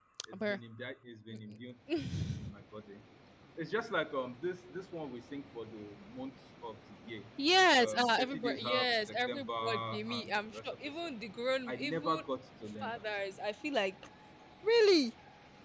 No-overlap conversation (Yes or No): No